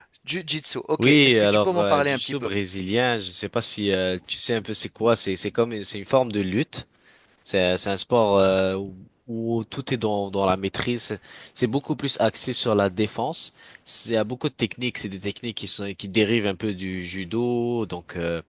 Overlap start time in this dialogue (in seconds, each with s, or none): 1.0 s